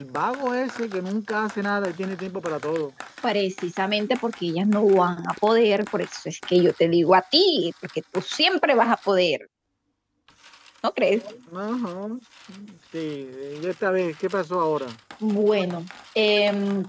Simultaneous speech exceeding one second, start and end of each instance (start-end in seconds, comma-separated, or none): none